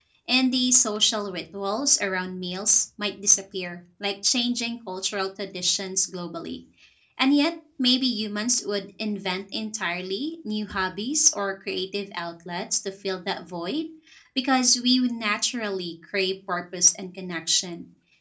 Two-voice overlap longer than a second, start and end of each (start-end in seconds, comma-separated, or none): none